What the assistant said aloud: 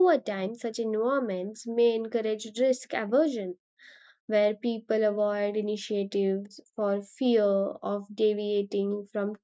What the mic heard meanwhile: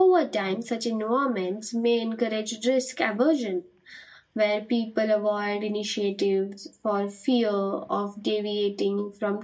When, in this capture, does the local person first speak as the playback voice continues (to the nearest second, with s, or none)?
none